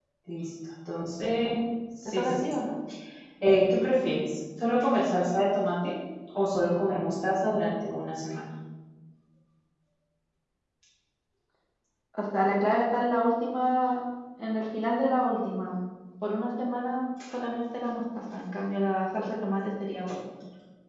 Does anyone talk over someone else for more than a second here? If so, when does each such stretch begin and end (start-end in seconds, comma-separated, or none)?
none